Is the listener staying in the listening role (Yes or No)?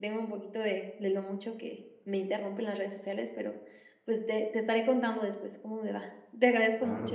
No